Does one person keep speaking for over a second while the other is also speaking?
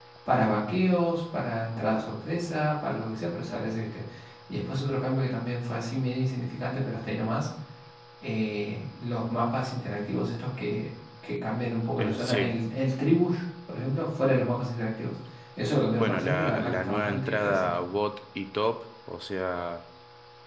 Yes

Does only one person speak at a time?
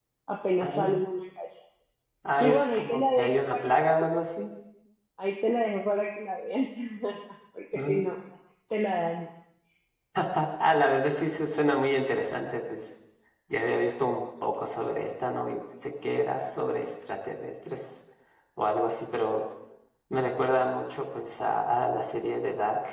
No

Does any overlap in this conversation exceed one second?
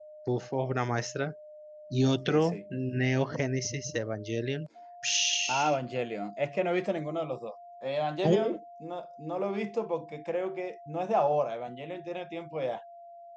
No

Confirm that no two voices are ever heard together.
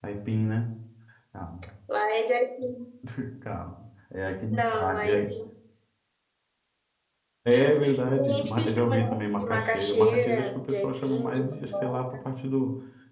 No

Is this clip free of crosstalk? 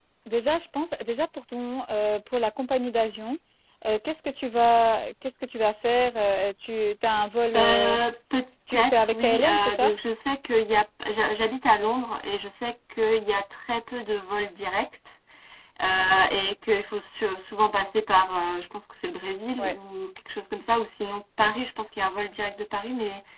No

